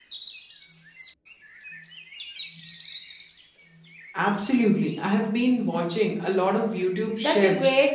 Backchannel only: No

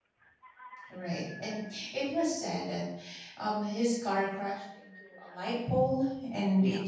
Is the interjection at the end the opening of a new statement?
No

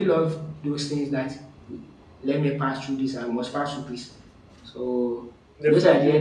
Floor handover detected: No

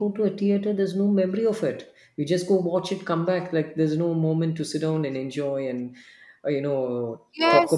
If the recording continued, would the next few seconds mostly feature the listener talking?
Yes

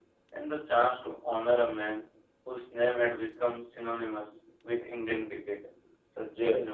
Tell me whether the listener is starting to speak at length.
No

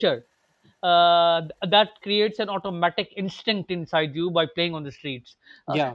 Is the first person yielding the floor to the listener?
No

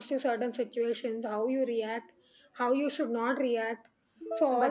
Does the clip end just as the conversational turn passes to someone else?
Yes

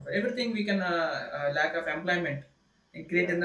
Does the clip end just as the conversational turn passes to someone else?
No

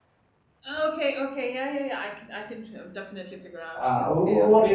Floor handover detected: Yes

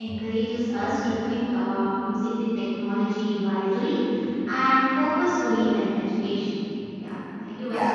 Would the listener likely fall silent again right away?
No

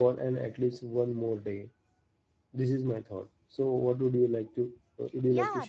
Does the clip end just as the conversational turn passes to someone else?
Yes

